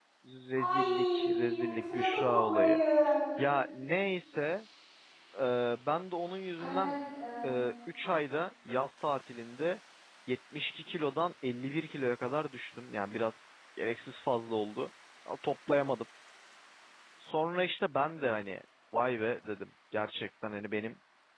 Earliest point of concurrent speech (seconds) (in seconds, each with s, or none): 0.6 s